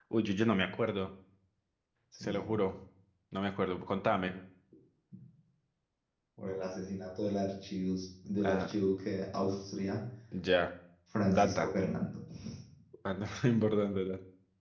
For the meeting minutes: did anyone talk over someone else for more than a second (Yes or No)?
No